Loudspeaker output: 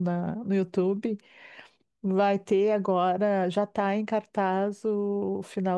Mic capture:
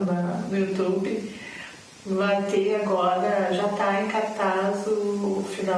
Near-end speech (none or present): none